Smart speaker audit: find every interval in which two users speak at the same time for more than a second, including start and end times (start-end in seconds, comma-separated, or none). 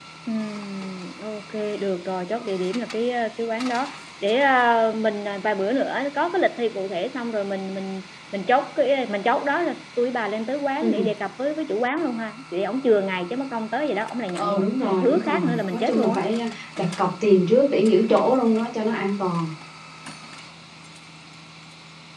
14.4-16.2